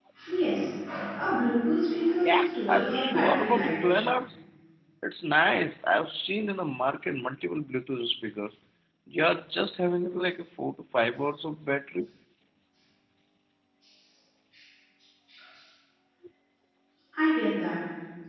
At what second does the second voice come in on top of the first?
2.2 s

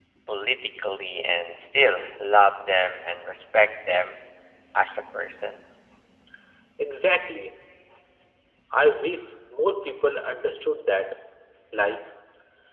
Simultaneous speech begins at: none

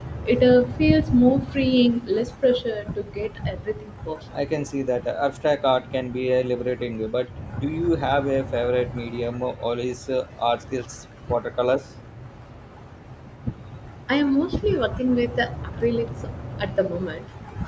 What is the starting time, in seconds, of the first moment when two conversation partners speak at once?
none

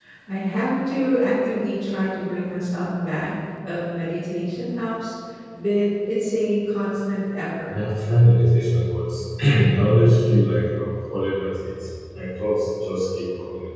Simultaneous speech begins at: none

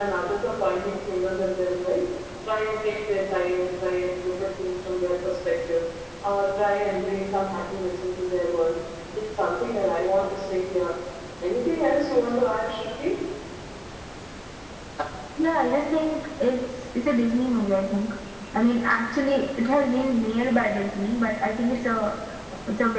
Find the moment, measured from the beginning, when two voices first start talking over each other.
none

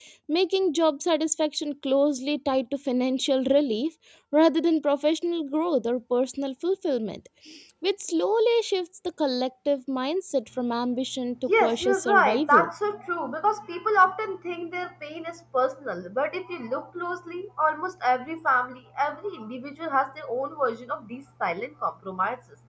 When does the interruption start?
11.5 s

